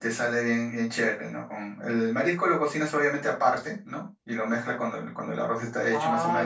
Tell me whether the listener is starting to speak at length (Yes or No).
Yes